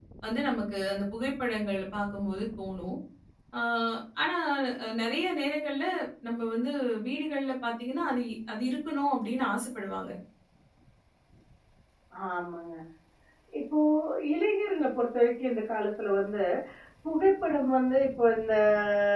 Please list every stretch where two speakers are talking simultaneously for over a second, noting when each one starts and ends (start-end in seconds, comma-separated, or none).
none